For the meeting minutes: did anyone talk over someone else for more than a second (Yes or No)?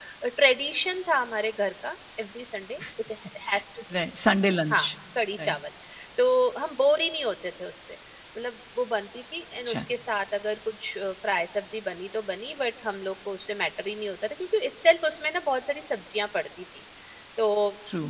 No